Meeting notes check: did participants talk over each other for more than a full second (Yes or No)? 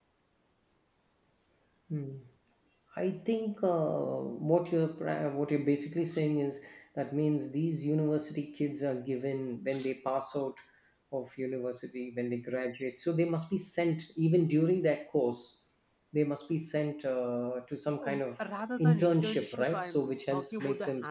Yes